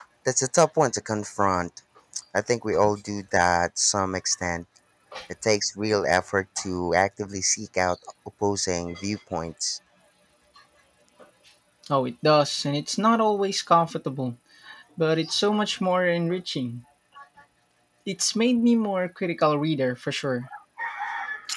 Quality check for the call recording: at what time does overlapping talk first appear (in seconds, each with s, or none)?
none